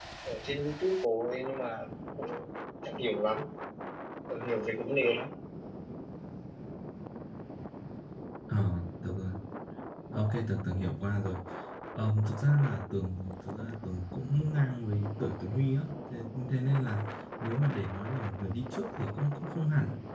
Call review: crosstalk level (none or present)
none